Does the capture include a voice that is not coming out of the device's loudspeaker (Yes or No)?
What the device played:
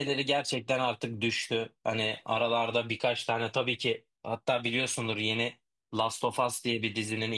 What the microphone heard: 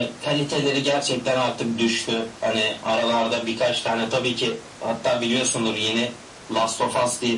No